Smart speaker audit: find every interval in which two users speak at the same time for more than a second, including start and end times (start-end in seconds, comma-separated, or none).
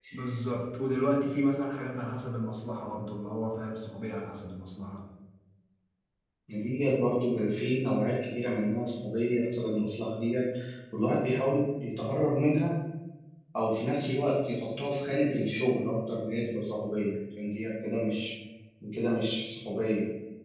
none